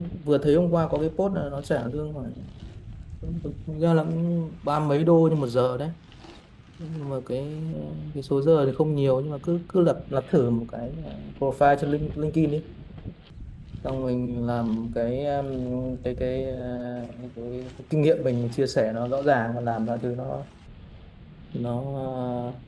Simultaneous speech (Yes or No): No